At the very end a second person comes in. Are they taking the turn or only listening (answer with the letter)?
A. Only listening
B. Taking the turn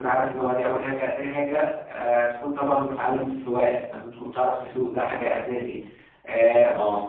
A